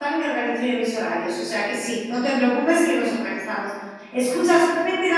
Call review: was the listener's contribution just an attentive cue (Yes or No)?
Yes